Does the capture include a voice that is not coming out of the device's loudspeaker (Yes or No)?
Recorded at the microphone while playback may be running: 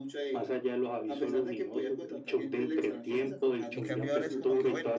Yes